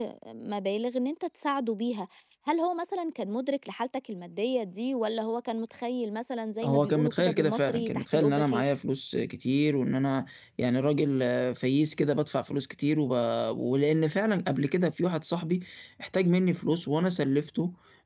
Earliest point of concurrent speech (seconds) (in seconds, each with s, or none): 6.6 s